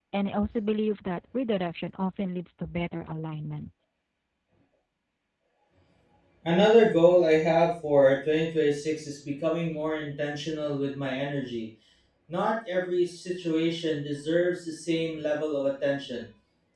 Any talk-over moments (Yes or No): No